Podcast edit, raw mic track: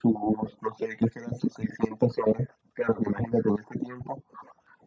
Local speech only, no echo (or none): none